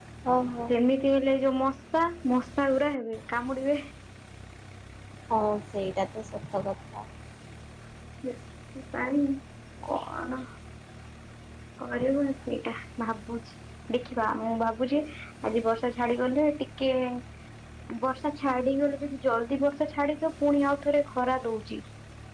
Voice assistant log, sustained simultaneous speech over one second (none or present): none